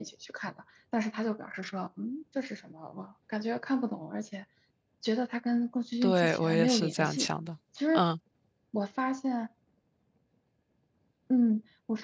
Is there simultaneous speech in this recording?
Yes, from 6.0 s

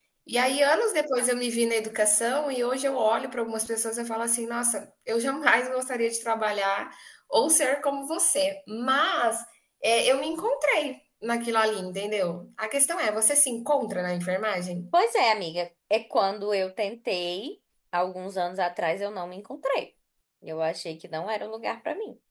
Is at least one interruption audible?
No

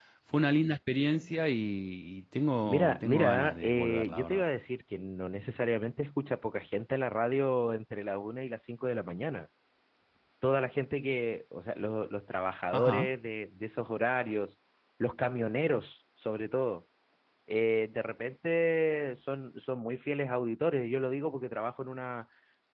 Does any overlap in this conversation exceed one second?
Yes, from 2.6 s

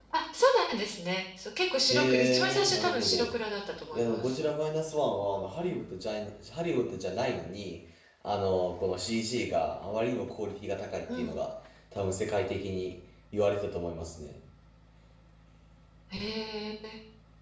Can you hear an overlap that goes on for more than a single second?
Yes, from 1.9 s

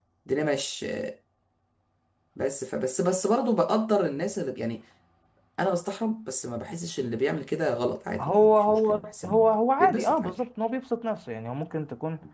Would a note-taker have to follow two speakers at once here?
Yes, from 8.2 s

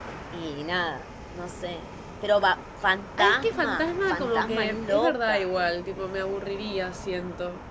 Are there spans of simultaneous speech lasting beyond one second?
Yes, from 3.2 s

